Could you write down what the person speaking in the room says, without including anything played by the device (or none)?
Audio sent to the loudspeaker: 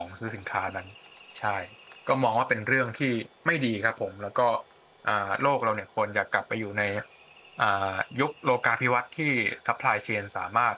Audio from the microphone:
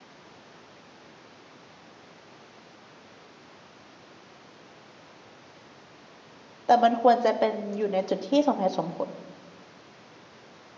แต่มันควรจะเป็นอยู่ในจุดที่สมเหตุสมผล